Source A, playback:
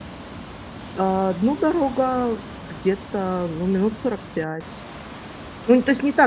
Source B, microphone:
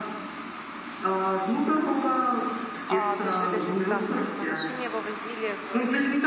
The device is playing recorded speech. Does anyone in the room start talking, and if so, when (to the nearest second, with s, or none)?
3 s